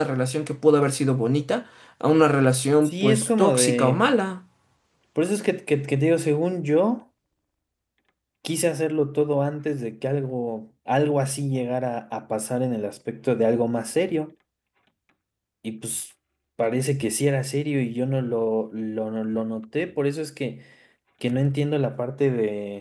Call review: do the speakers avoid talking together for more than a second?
No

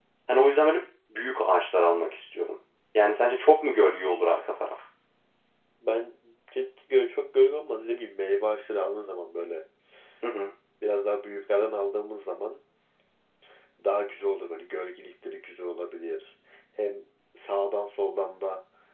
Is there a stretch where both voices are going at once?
No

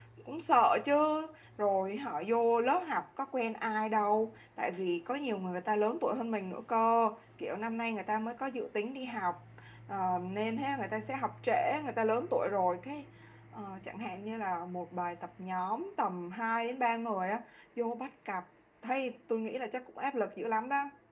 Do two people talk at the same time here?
No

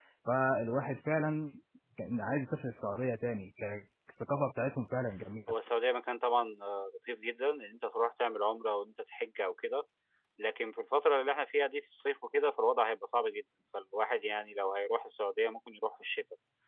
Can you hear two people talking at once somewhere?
No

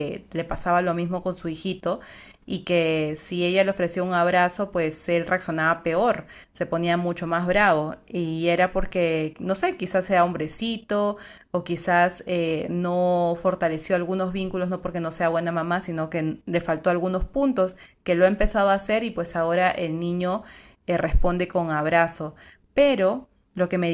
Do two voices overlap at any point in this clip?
No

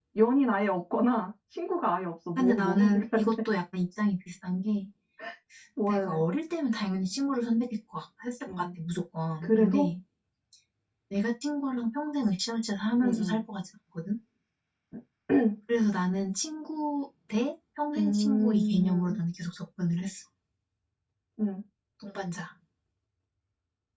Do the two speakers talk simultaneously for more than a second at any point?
Yes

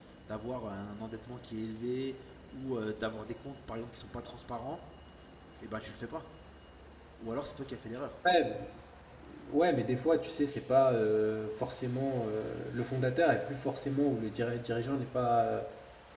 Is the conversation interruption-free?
Yes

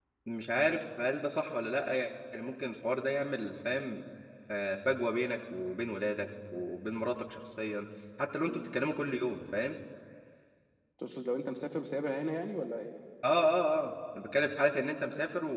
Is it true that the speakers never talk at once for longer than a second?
Yes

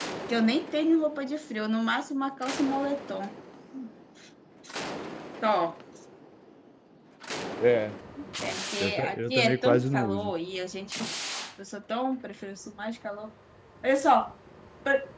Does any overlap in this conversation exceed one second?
Yes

